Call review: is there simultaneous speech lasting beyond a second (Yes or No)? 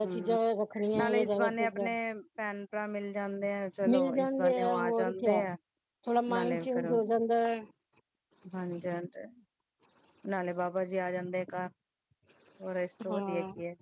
Yes